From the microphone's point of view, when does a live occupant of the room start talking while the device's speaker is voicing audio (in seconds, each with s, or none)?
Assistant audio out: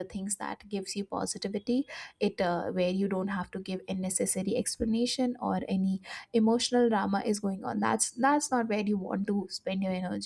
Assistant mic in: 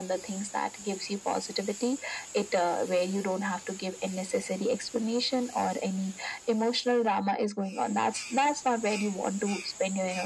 none